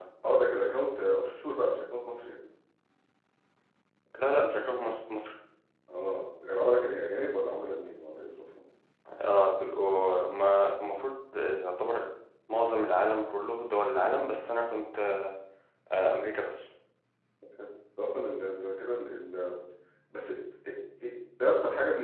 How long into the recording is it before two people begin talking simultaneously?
none

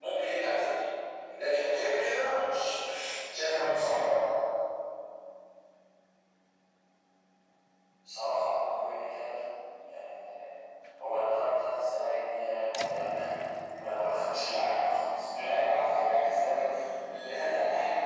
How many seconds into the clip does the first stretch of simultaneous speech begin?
none

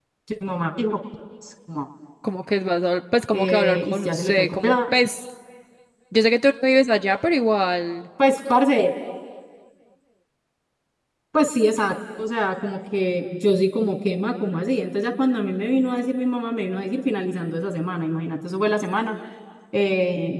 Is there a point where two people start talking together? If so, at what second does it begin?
3.3 s

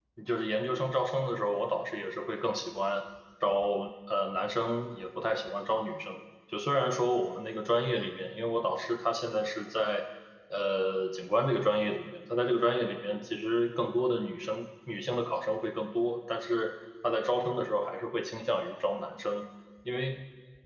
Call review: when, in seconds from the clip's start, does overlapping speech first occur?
none

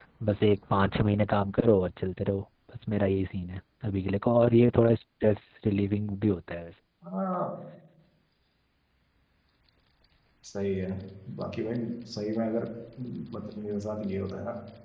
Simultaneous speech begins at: none

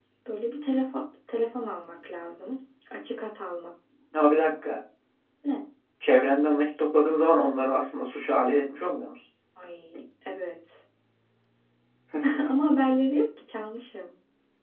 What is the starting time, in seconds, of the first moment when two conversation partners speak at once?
none

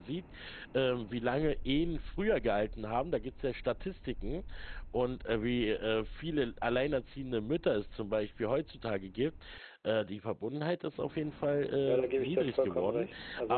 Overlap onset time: 11.9 s

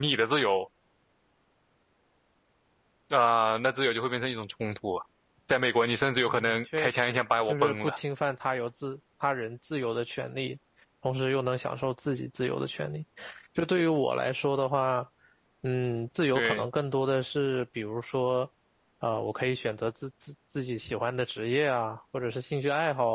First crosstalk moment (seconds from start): 6.3 s

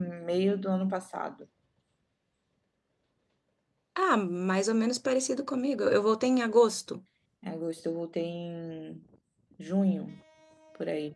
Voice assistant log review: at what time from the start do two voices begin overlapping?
none

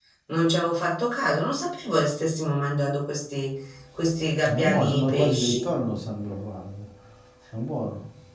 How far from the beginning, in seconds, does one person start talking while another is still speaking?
4.4 s

